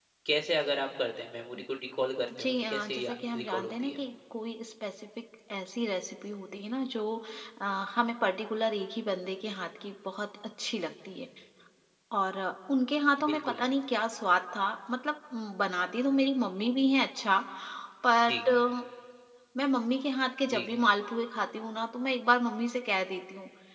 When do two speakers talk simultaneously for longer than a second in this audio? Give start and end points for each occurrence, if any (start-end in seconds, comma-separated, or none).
2.4-4.0